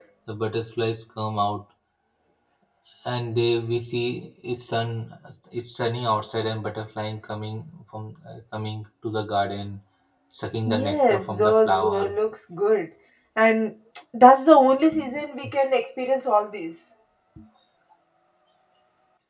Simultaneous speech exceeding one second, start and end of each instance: 10.7-12.2

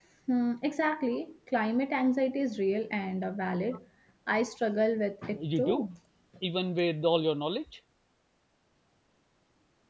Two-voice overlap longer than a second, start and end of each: none

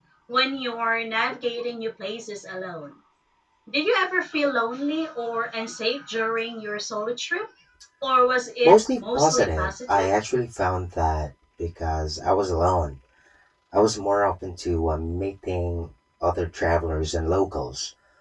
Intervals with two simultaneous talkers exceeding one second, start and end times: 8.6-10.1

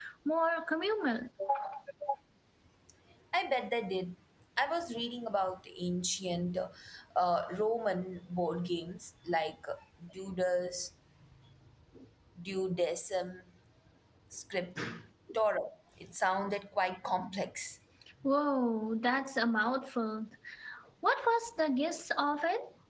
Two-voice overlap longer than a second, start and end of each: none

